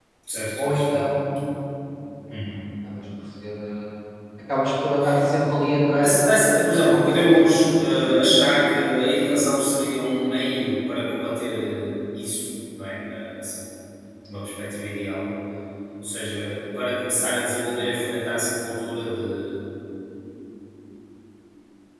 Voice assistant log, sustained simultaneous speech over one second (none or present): present